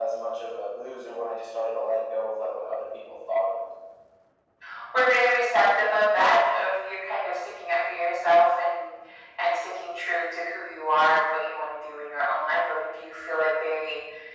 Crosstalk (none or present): none